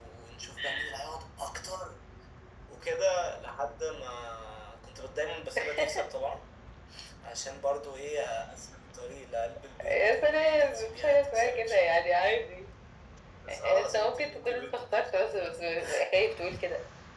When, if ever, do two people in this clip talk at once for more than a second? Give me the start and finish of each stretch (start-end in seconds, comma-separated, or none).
9.8-12.0, 13.5-15.5